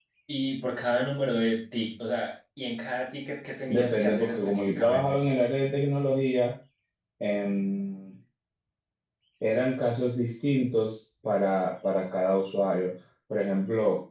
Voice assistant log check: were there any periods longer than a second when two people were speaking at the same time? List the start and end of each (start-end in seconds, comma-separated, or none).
3.7-5.2